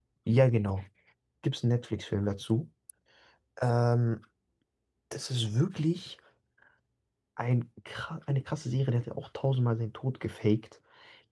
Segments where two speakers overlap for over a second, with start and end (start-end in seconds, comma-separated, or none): none